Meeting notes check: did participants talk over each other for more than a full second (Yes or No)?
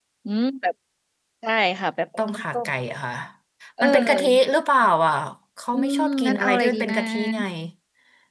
Yes